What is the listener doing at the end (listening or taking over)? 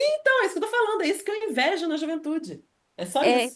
taking over